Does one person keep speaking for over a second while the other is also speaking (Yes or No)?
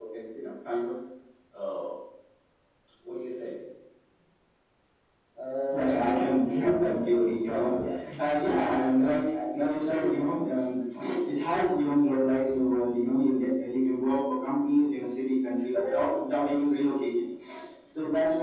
Yes